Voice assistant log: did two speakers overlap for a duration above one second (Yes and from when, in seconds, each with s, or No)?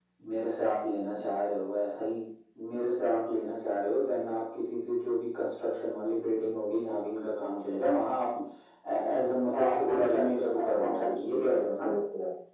Yes, from 9.5 s